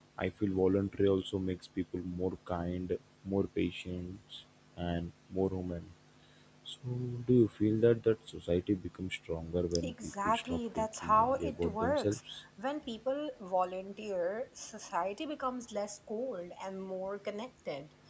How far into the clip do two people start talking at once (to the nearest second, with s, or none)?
10 s